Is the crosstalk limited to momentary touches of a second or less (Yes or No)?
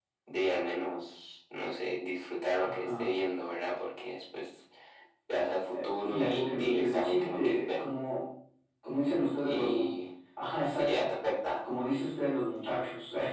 No